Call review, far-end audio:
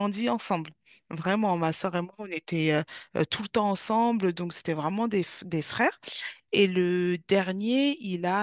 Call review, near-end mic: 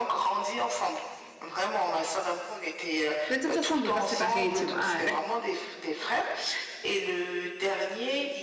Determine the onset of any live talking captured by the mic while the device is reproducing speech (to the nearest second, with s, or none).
3 s